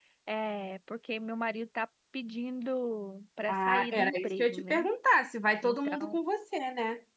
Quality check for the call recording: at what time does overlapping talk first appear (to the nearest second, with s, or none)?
3 s